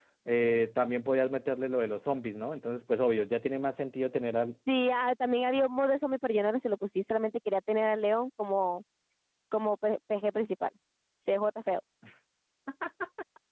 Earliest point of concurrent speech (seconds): none

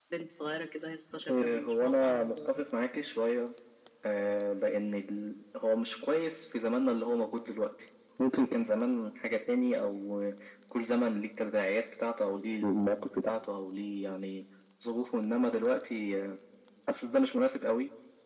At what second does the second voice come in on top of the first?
1.3 s

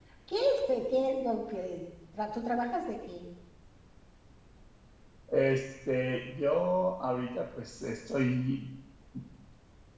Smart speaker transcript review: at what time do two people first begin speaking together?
none

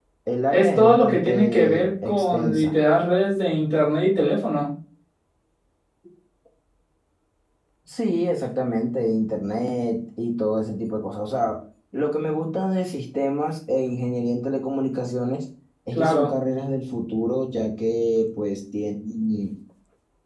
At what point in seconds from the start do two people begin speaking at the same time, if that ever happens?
0.5 s

